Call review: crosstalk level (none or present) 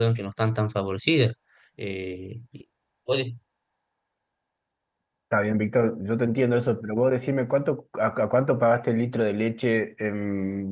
none